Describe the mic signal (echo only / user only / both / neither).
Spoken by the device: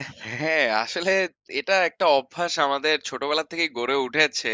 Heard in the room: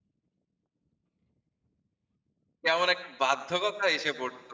user only